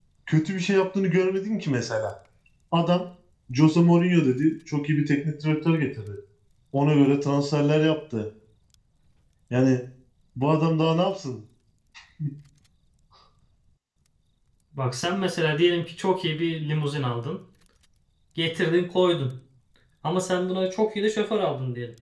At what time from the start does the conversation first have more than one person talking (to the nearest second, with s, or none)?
none